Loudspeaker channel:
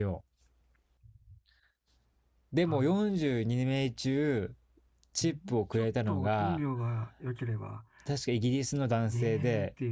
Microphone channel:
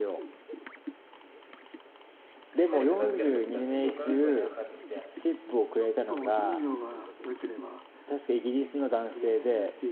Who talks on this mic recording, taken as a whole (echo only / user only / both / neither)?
both